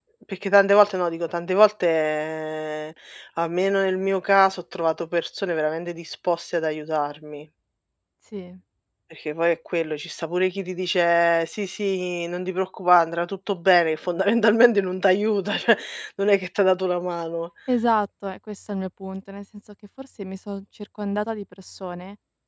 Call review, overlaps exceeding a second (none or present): none